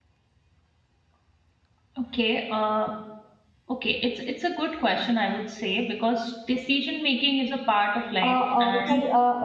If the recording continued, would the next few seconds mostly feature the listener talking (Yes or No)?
Yes